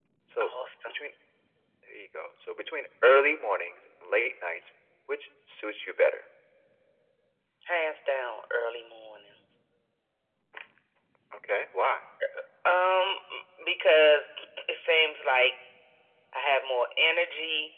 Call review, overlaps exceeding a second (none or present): none